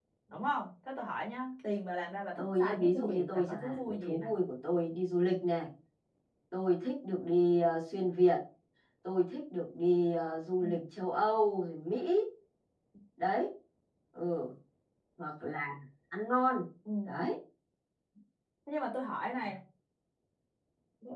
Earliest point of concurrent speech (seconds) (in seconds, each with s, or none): 2.4 s